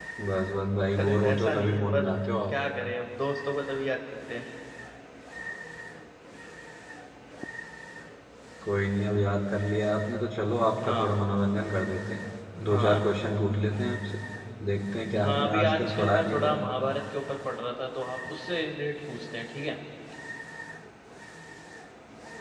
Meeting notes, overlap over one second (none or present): present